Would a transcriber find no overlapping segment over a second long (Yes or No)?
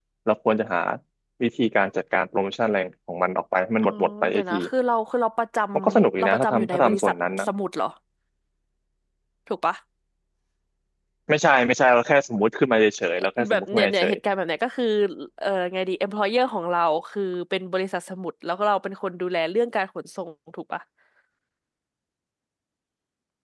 No